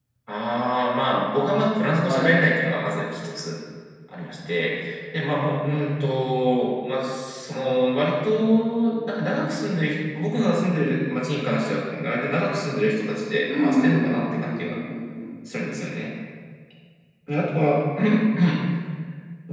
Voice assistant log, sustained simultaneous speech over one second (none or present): present